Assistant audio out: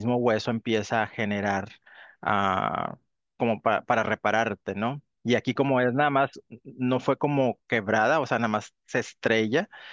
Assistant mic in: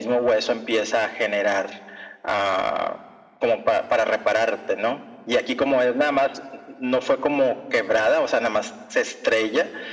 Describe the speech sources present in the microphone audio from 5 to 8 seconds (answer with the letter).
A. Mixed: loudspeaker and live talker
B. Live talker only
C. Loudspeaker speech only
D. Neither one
C